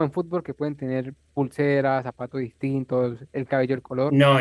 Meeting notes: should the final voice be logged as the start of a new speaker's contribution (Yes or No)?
Yes